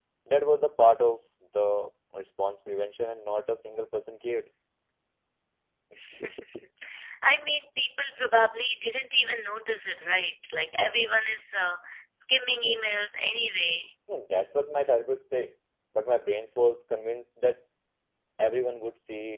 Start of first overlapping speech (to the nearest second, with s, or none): none